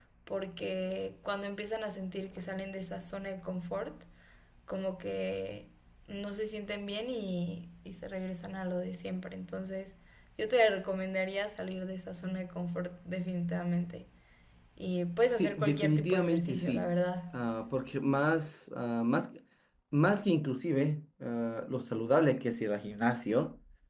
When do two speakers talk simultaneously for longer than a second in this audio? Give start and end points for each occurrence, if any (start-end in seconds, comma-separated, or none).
15.4-16.9